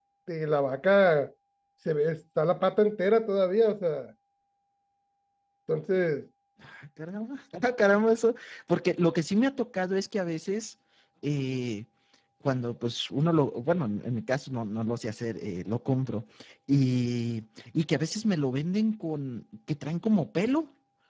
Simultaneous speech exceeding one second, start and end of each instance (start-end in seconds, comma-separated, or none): none